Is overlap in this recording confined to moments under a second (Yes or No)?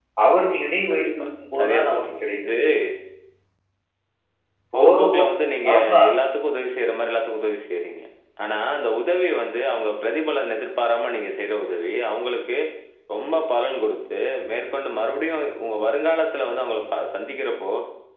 No